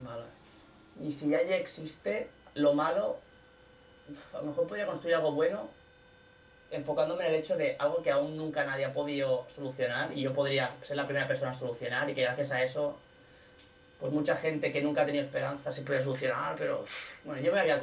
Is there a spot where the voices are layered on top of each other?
No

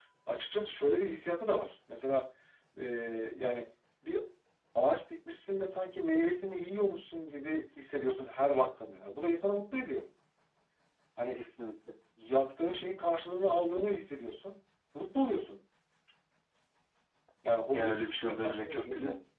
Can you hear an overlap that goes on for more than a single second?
Yes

